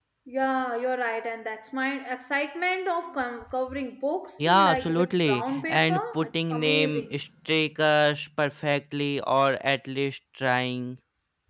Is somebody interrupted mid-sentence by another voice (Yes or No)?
Yes